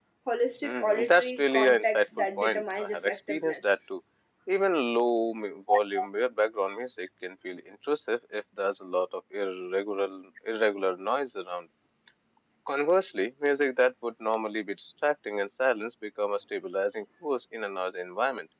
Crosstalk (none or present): present